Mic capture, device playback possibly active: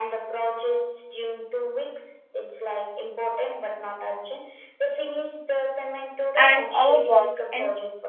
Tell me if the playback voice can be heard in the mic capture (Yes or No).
Yes